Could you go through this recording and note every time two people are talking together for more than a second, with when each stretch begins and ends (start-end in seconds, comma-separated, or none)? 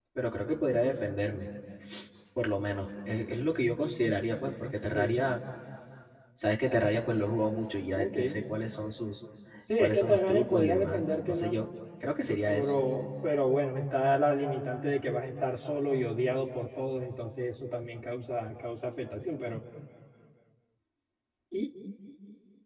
9.8-11.5